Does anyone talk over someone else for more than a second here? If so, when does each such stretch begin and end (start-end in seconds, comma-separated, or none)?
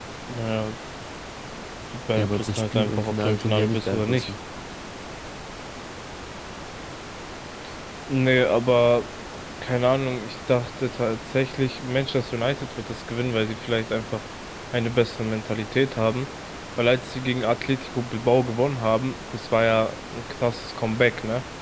2.2-4.3